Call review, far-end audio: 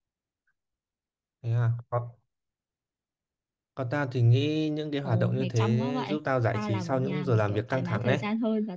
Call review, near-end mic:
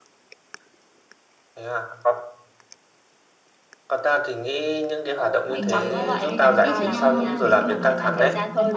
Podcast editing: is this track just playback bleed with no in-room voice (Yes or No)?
No